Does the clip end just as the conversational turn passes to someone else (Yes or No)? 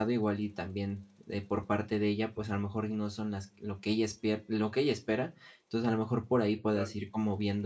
No